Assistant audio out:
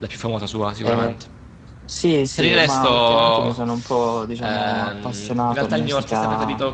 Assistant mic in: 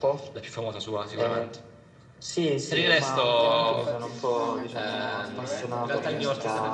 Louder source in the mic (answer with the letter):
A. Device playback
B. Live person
A